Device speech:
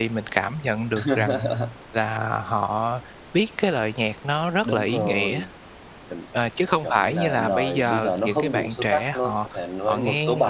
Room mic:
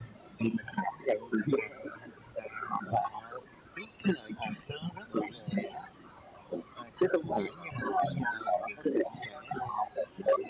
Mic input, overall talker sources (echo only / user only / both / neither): echo only